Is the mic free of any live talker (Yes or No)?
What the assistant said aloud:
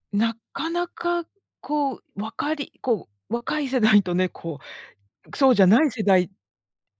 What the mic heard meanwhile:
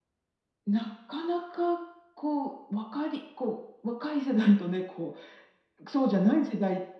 Yes